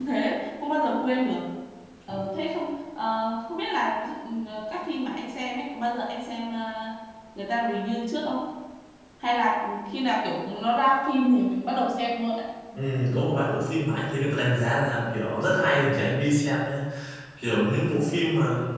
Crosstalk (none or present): none